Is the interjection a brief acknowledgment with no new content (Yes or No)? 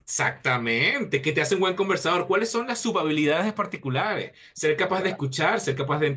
Yes